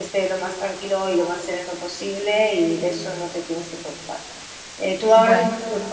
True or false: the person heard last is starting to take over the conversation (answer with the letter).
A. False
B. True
A